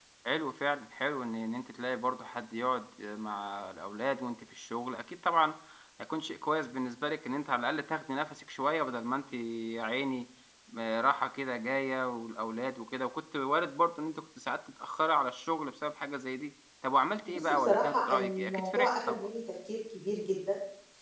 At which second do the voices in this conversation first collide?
17 s

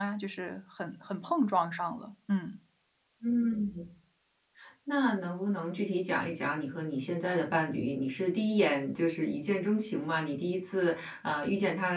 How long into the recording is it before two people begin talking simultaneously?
none

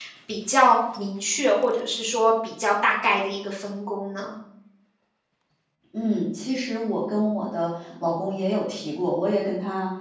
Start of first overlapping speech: none

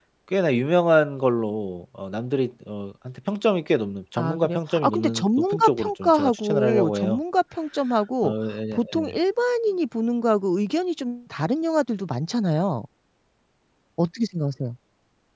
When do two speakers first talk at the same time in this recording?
4 s

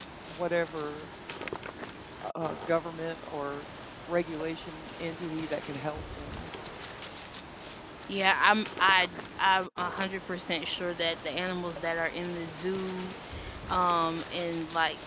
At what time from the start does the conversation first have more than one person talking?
none

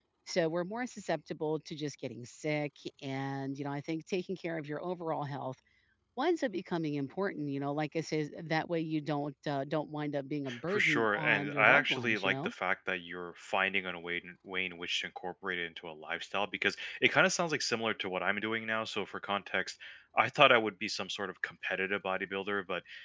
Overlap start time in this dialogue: 10 s

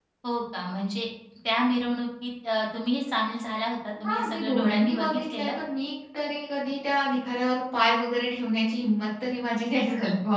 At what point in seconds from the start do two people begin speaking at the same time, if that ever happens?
4 s

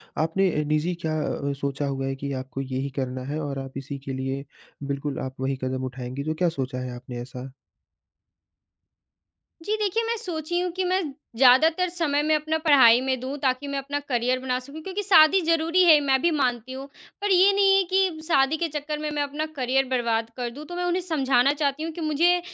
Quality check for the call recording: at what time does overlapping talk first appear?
none

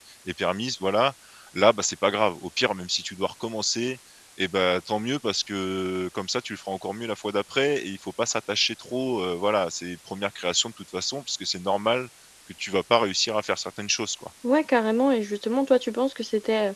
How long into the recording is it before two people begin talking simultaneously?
none

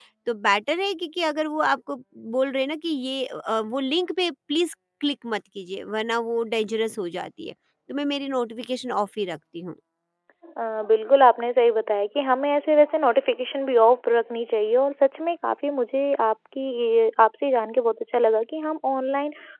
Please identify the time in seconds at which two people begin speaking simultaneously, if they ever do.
none

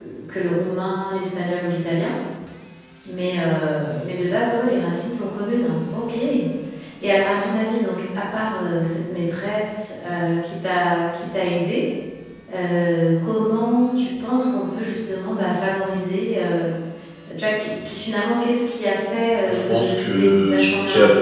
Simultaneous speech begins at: 19 s

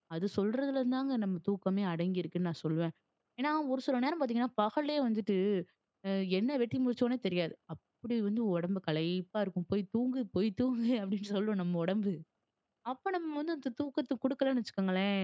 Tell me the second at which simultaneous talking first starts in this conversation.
none

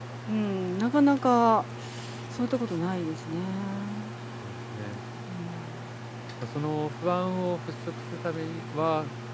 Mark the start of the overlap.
none

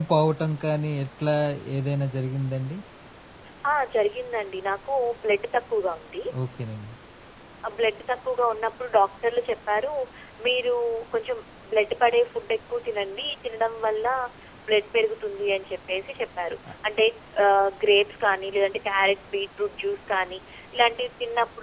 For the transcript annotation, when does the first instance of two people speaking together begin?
none

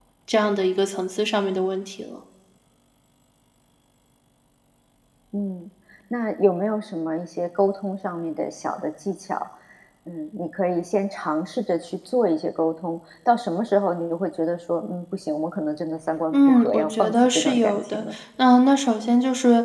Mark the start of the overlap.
16 s

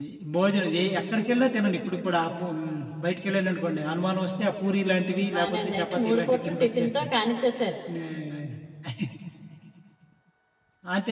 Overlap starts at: 5 s

